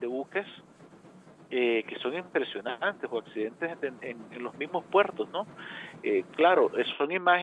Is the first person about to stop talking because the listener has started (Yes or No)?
No